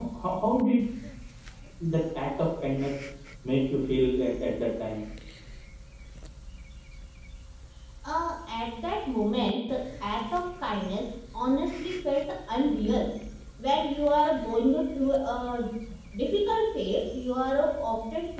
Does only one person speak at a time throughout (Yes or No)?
Yes